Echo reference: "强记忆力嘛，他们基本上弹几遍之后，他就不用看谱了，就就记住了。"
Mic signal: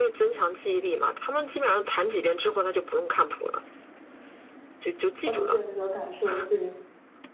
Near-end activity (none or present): present